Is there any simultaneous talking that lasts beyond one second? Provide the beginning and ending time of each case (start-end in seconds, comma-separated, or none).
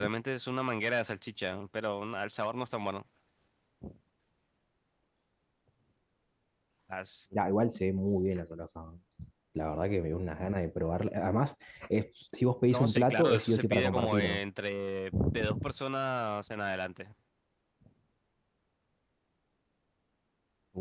12.7-14.4